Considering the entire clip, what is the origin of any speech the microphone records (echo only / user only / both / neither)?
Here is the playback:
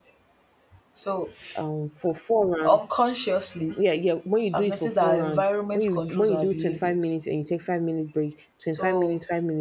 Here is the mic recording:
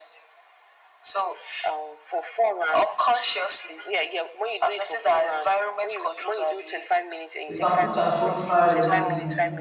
both